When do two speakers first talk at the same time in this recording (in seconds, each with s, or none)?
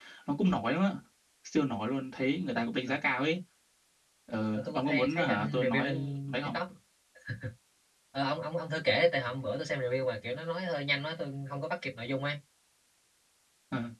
4.5 s